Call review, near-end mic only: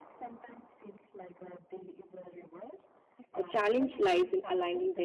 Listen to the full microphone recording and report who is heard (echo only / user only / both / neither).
both